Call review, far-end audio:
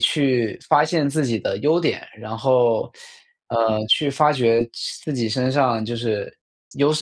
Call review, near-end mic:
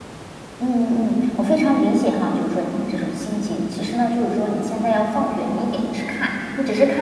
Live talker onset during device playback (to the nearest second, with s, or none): 1 s